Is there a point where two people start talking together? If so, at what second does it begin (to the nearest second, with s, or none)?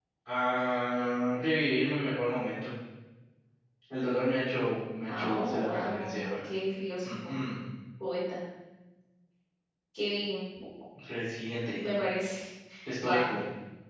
5 s